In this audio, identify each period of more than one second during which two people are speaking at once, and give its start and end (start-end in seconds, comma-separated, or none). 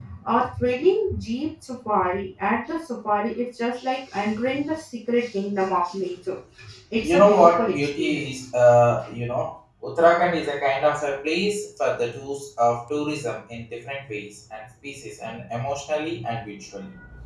7.0-8.3